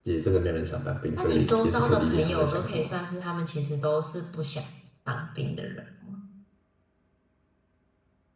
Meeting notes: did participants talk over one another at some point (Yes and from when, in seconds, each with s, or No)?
Yes, from 1.2 s